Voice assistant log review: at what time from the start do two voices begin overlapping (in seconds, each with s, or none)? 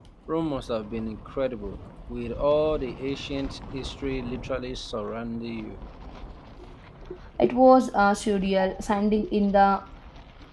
none